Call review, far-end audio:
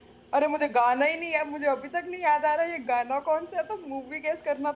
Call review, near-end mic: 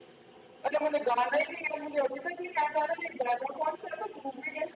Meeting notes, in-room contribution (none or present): none